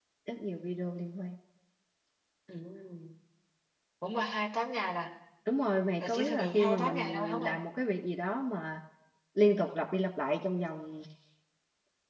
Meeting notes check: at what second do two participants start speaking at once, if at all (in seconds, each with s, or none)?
6.0 s